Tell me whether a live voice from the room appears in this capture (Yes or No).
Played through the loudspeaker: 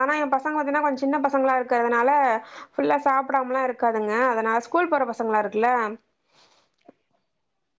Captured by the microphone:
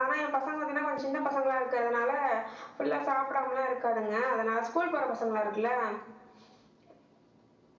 No